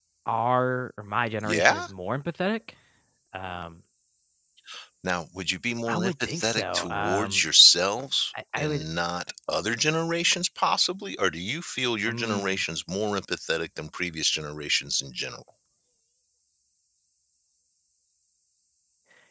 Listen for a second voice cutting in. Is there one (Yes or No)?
Yes